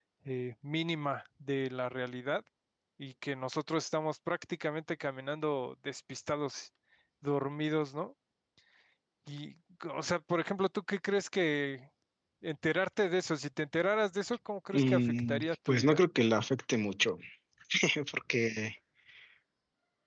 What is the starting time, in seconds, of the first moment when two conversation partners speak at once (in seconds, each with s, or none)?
14.7 s